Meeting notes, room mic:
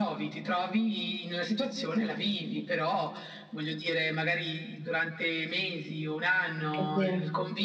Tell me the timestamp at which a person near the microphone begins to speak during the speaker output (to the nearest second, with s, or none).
7 s